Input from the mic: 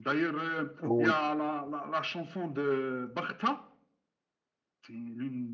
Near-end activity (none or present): present